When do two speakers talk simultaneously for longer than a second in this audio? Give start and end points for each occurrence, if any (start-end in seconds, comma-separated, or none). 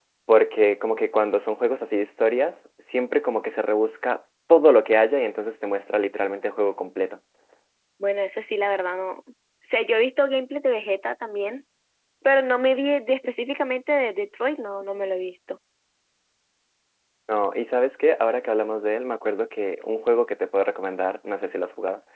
none